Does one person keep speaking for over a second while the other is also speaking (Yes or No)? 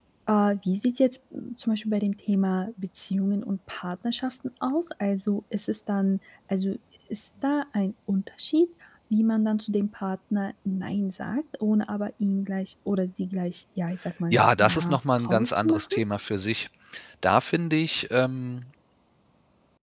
Yes